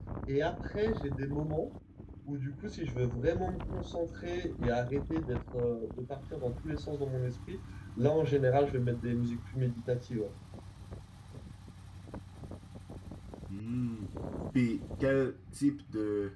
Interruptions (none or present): none